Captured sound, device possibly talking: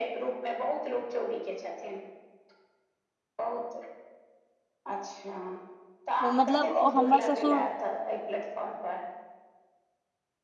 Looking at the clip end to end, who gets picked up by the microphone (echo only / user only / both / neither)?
both